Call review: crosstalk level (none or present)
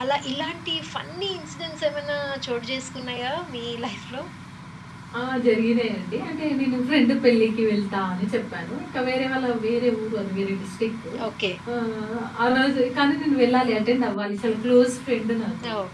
none